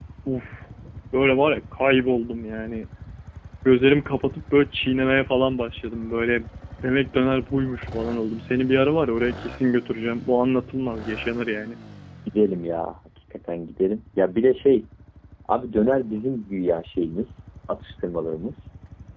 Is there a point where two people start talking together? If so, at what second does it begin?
none

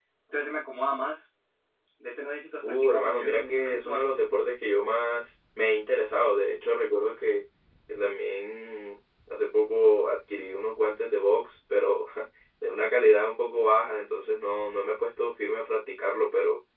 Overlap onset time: 2.6 s

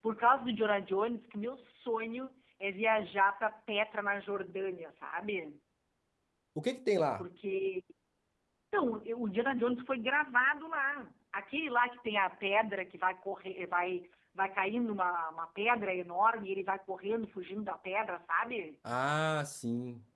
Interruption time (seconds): none

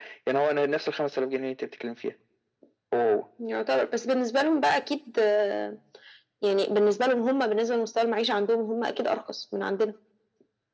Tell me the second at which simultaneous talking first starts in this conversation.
none

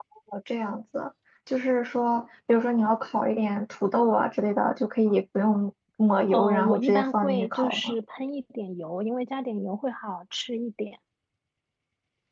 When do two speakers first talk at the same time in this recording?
6.3 s

